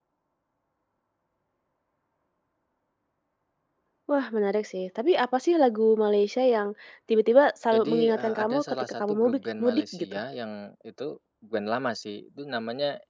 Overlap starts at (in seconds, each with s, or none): 7.7 s